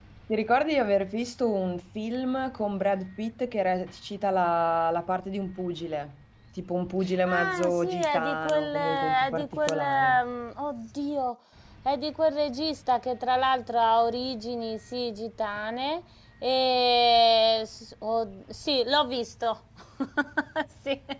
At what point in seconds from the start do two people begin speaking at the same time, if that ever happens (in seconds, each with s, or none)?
7.0 s